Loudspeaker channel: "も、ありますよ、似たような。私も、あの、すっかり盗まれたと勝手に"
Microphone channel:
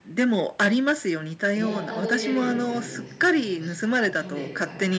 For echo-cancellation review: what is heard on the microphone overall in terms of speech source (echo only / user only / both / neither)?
both